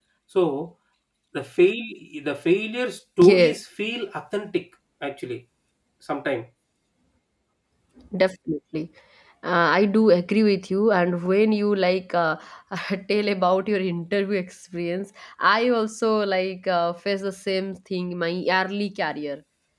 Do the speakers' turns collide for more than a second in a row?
No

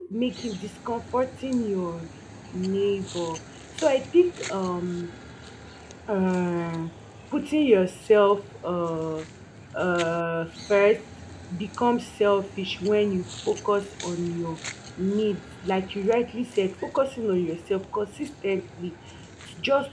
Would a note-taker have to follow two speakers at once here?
No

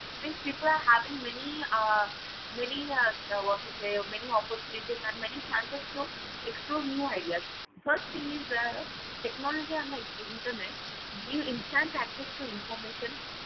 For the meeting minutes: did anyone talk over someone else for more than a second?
No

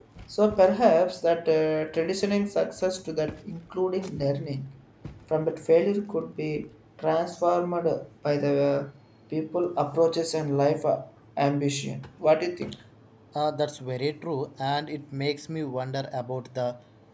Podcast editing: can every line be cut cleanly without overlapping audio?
Yes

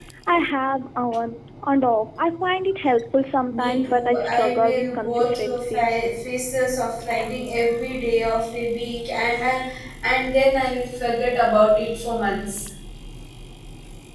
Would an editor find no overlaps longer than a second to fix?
No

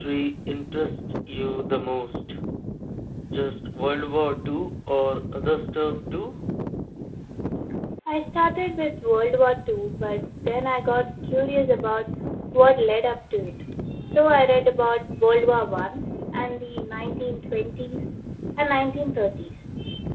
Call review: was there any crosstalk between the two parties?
No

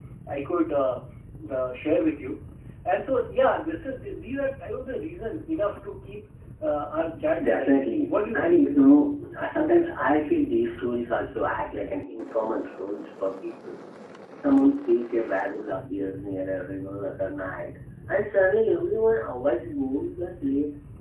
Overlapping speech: Yes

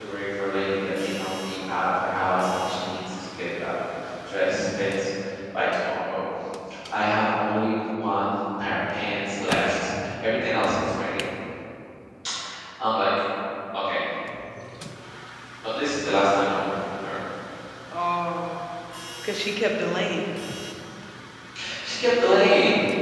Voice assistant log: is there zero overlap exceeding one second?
Yes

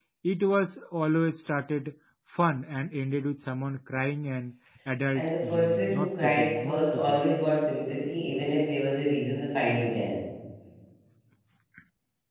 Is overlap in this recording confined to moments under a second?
No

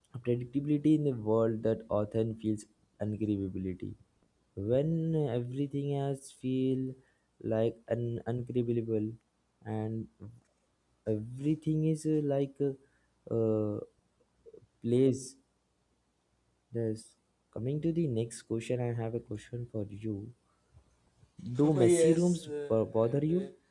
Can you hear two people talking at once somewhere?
Yes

